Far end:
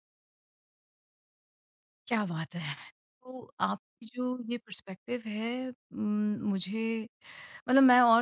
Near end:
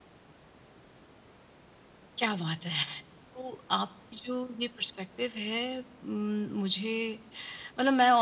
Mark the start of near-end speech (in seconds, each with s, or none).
none